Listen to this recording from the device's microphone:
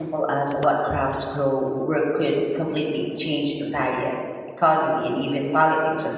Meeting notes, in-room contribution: present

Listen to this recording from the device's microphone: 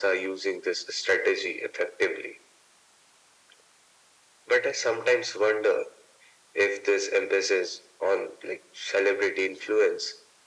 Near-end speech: none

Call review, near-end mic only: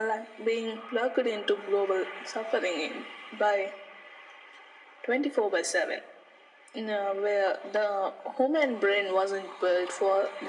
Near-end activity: none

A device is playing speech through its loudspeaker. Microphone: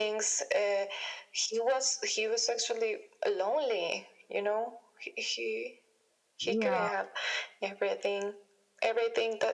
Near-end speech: present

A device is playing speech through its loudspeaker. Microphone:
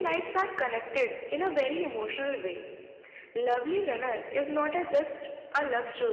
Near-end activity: none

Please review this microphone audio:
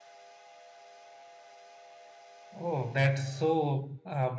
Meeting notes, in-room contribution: present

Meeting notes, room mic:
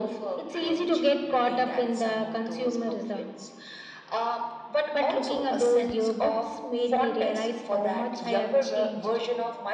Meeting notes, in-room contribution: none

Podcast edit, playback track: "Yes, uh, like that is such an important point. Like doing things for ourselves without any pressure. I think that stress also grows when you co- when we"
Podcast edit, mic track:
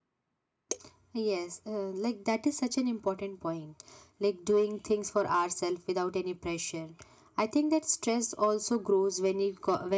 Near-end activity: none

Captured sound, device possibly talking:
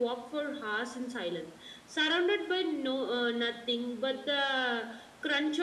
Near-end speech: none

